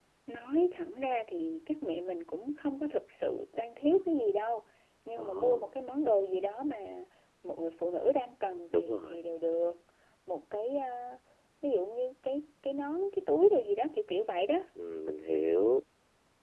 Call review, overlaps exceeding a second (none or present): none